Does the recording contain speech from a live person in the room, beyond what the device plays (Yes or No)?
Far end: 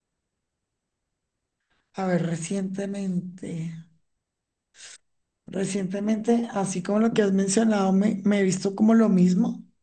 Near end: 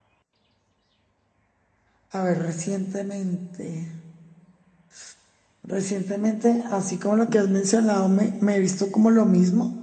No